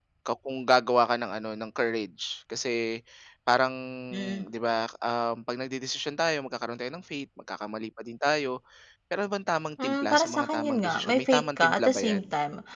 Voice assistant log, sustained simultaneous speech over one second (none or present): present